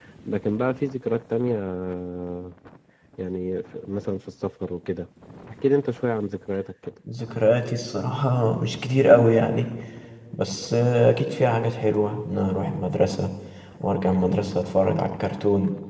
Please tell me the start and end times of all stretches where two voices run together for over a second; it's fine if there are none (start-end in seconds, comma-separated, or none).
none